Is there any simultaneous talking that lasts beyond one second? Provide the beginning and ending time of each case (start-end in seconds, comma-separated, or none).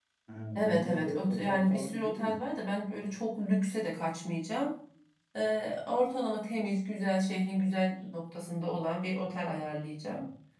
0.6-2.4